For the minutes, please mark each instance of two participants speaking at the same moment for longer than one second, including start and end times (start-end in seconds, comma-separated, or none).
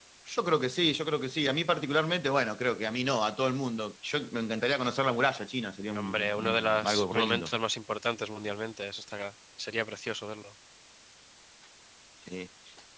6.0-7.5